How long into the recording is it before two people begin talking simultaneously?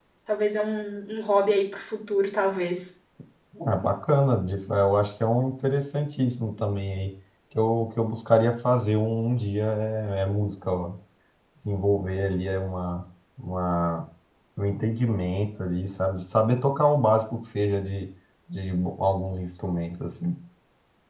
none

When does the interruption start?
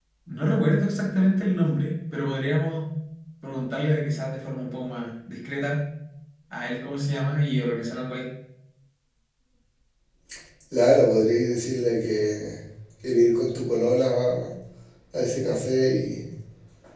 none

